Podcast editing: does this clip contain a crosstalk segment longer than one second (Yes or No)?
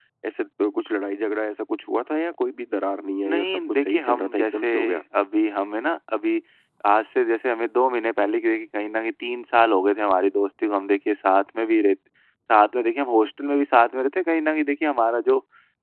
Yes